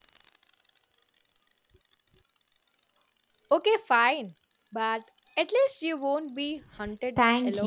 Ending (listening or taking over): taking over